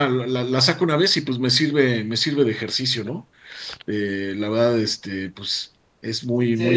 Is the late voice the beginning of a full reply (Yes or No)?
Yes